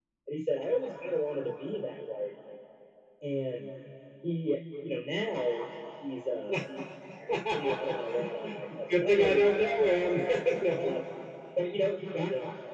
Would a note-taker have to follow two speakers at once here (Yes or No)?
Yes